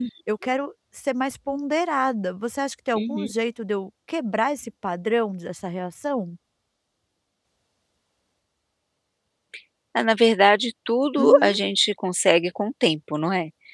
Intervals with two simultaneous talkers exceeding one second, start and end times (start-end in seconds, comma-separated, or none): none